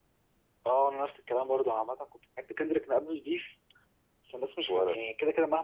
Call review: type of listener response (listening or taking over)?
listening